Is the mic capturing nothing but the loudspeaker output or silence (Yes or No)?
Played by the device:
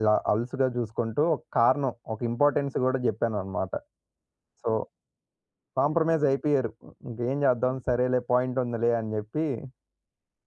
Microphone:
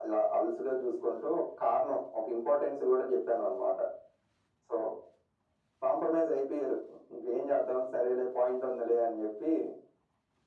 Yes